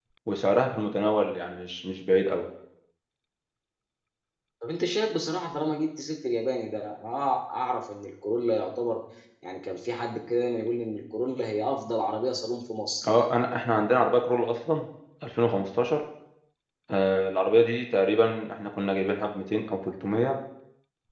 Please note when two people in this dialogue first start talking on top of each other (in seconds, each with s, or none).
none